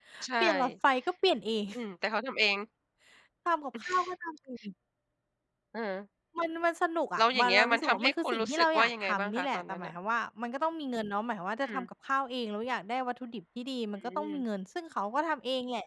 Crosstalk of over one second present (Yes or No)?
Yes